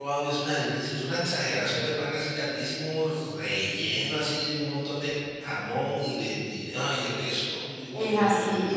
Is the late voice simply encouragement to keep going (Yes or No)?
No